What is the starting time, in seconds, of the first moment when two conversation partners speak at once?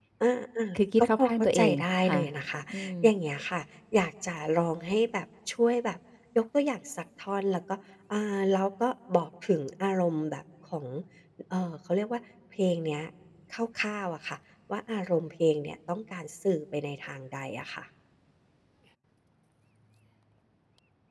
1.0 s

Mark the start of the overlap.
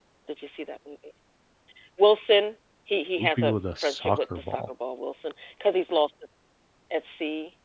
3.2 s

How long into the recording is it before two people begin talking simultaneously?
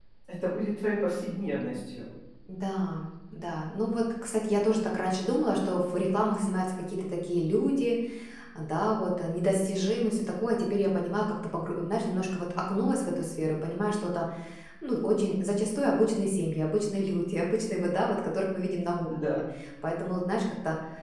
none

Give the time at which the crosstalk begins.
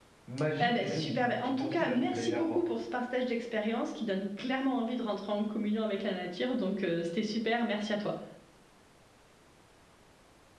0.6 s

